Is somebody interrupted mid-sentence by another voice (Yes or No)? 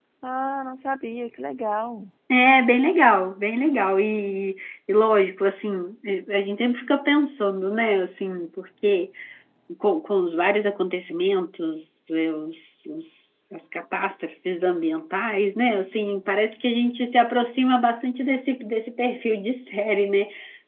No